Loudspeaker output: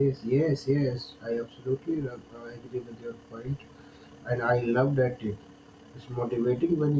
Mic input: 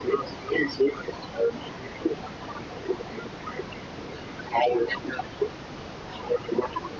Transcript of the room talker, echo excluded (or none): none